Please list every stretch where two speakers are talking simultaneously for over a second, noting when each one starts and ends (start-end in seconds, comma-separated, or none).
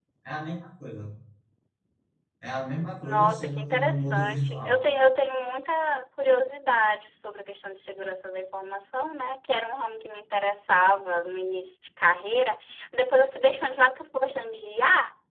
3.0-4.8